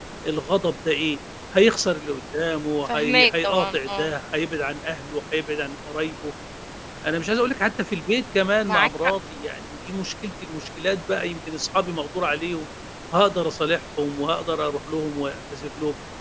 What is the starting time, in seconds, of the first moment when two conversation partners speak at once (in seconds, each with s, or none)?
2.9 s